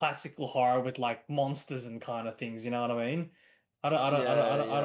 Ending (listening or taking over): listening